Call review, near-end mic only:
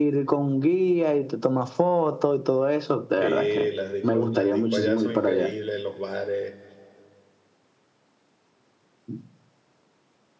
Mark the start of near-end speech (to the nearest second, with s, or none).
3 s